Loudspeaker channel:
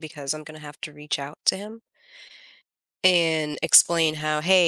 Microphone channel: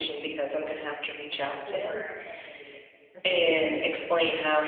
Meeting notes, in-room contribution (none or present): present